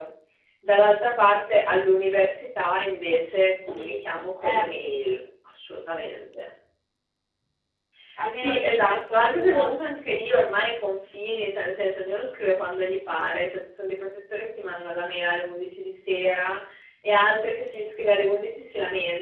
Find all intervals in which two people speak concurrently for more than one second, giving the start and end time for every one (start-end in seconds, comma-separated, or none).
8.3-9.7